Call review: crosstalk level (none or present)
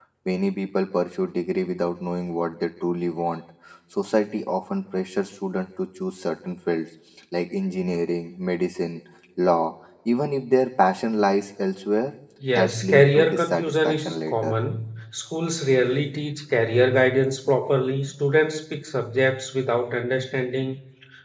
present